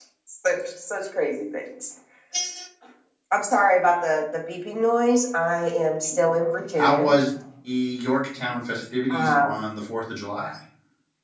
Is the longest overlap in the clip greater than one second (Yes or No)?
No